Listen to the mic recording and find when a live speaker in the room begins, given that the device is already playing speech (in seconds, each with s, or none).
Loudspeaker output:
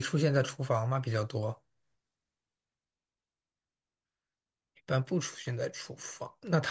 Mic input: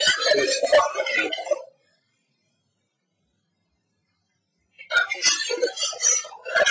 none